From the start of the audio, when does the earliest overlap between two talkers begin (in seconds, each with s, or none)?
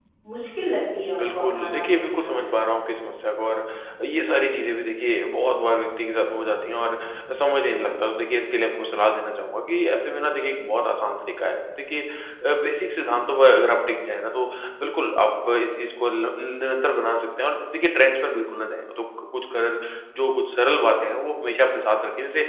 1.2 s